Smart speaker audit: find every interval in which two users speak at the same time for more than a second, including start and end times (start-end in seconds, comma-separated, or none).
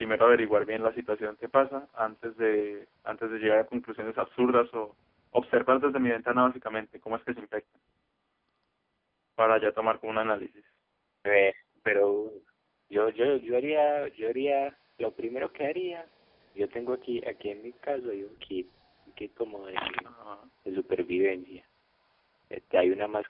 none